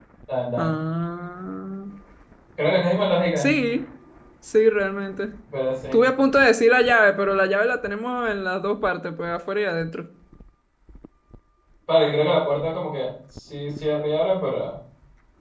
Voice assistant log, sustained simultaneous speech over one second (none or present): none